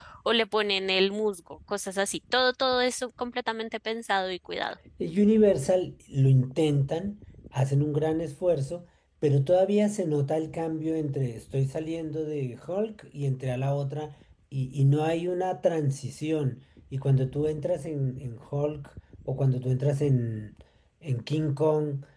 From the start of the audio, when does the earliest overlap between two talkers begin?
none

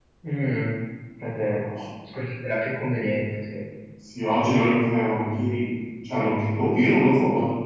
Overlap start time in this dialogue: none

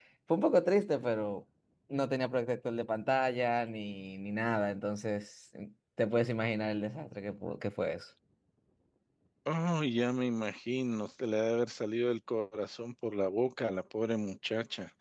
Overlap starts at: none

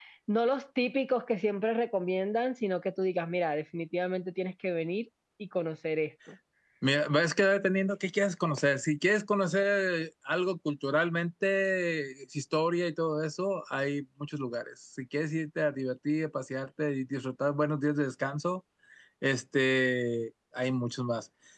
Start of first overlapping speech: none

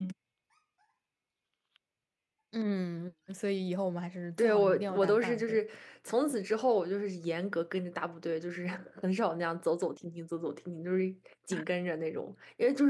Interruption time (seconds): 4 s

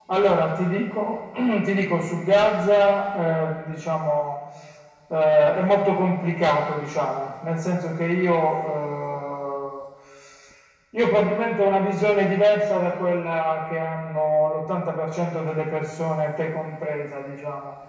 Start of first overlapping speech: none

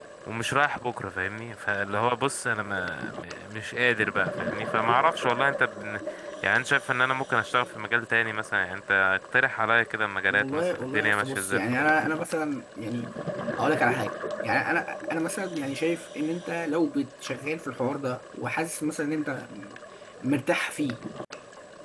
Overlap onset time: 10 s

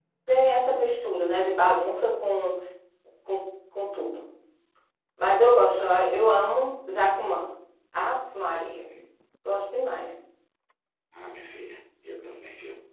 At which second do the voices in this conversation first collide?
none

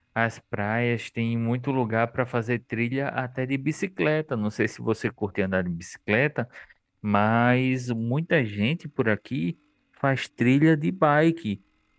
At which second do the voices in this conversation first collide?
none

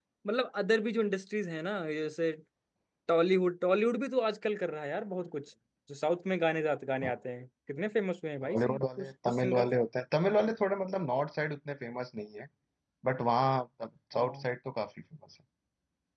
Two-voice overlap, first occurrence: 8 s

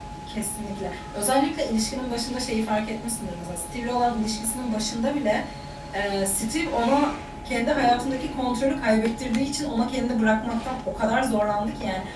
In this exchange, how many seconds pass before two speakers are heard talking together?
none

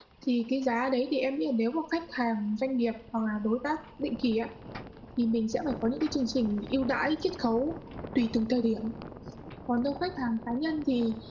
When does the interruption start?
none

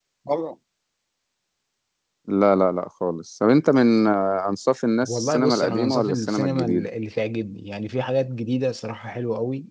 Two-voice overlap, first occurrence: 5 s

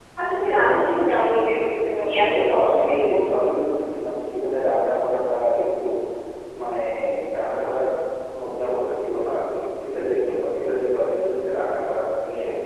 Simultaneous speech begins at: 2 s

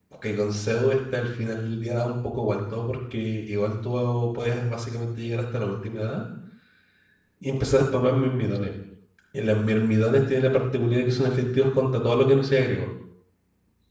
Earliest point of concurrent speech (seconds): none

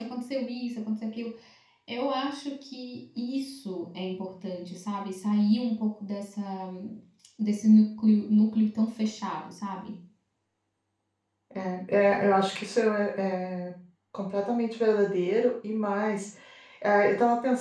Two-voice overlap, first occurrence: none

